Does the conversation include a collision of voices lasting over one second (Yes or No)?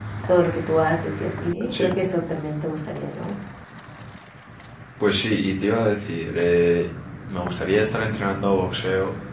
No